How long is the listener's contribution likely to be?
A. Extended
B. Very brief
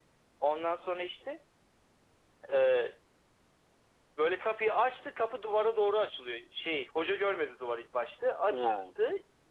B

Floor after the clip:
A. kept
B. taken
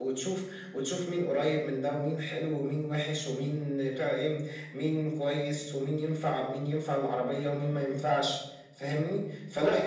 A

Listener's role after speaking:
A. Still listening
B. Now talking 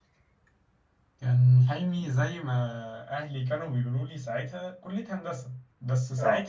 A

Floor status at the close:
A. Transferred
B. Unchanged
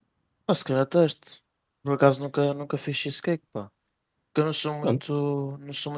B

